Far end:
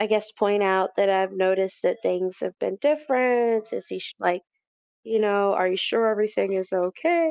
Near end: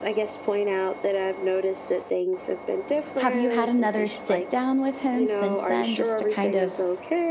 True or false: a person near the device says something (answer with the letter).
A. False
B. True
B